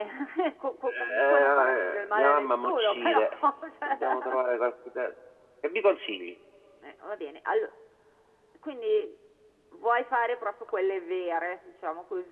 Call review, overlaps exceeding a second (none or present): present